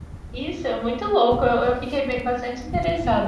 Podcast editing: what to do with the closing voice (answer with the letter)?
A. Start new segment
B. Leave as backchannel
A